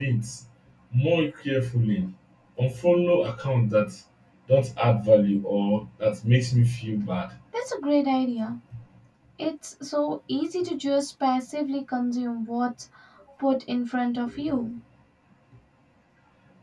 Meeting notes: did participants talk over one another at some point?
No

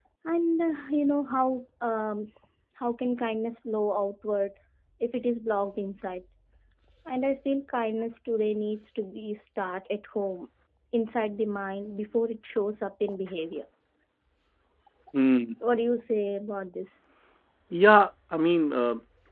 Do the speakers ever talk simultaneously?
No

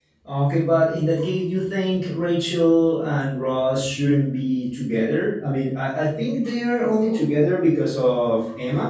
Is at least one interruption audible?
No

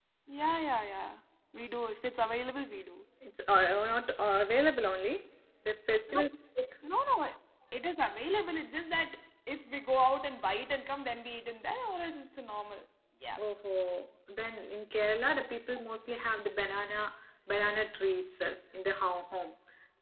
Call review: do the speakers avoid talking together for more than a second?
Yes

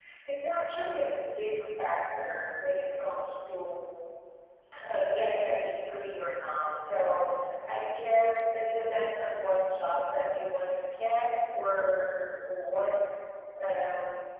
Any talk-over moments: No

